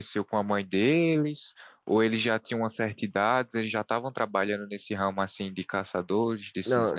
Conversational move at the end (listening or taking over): taking over